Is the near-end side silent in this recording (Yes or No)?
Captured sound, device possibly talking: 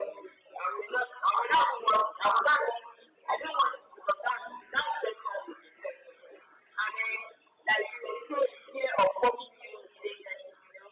Yes